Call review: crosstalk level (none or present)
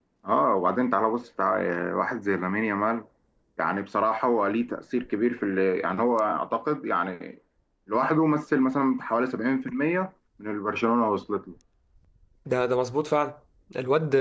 none